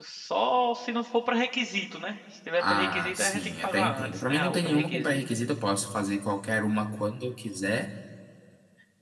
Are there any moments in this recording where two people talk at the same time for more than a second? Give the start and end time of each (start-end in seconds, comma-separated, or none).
2.6-5.2